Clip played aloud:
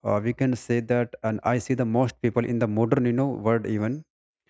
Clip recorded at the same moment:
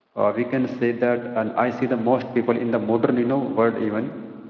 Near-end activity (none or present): none